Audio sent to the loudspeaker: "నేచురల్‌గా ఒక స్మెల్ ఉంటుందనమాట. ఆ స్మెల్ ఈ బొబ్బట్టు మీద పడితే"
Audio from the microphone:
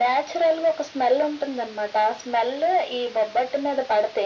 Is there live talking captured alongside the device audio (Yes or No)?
No